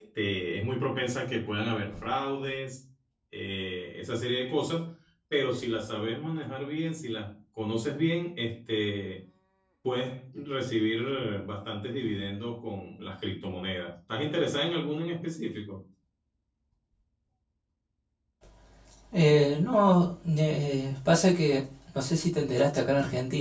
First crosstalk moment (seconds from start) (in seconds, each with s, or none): none